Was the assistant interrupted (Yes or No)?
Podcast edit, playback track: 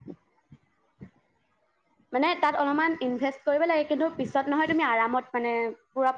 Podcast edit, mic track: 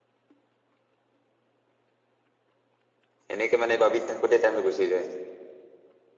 Yes